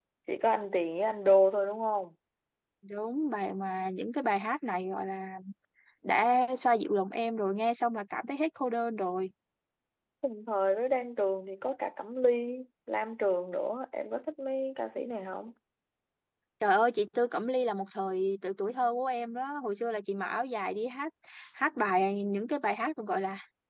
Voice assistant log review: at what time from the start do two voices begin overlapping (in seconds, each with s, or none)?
none